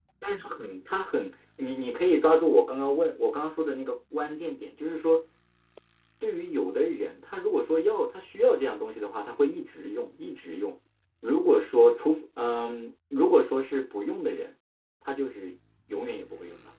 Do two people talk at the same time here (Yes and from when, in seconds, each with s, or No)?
No